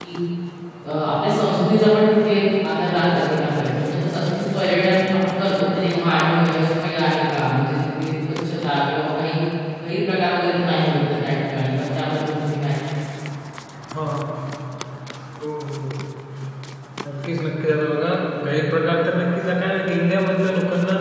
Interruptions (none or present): none